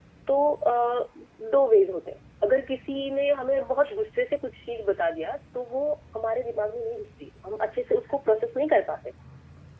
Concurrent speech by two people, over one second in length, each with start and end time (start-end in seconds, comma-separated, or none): none